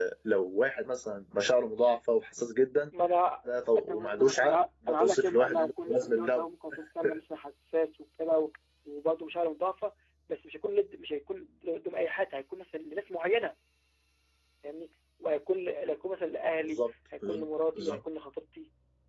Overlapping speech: Yes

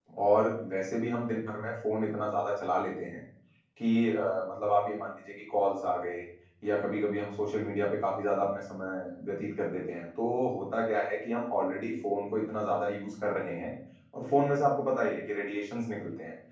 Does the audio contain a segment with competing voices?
No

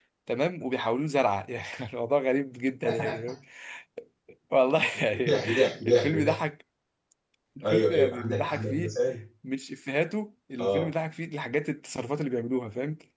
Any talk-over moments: Yes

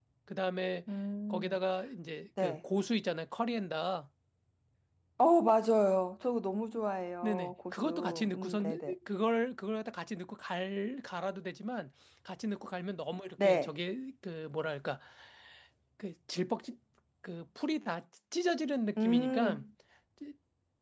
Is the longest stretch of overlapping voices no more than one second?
No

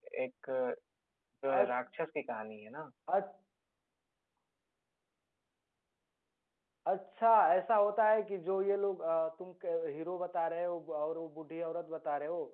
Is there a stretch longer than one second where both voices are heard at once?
No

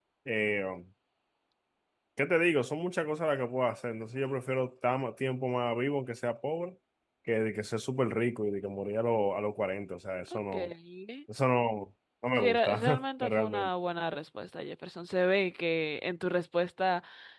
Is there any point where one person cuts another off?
Yes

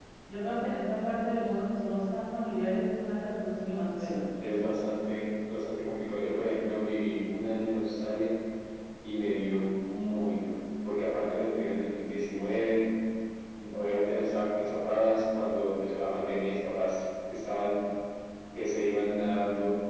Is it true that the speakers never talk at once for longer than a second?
Yes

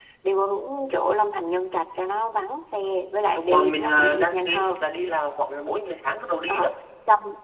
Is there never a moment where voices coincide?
No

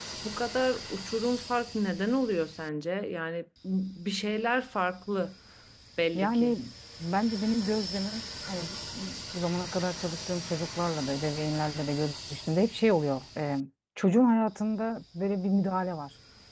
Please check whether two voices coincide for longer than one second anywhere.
No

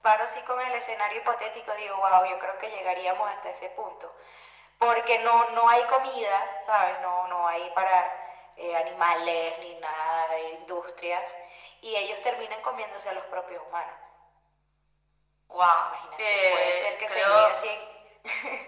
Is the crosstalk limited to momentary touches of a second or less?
No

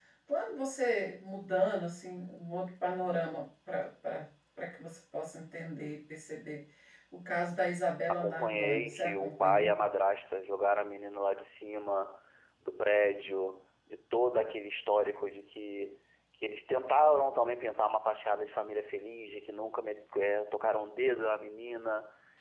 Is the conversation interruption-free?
No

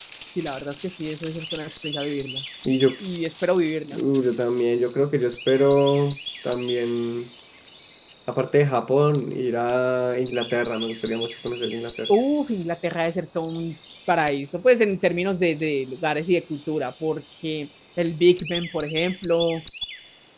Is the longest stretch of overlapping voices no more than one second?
Yes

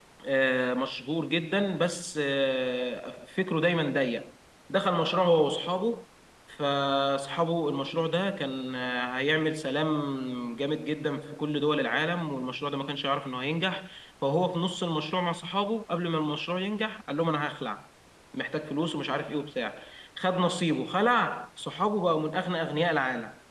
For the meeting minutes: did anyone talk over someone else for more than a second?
No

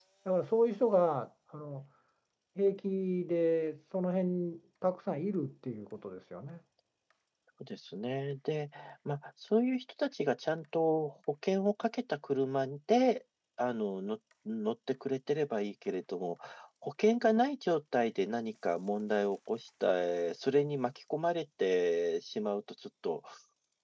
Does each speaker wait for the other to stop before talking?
Yes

